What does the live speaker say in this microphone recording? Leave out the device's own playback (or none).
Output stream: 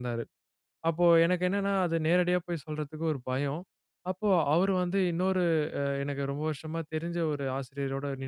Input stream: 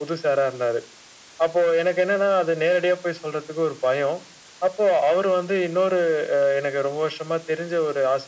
none